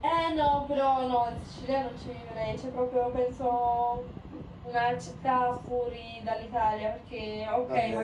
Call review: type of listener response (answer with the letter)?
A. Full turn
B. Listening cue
B